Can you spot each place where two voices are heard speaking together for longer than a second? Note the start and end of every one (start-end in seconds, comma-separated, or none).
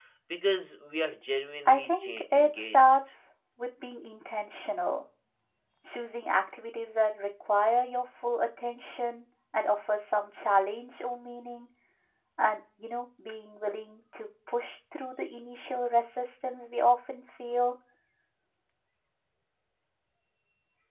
1.6-3.0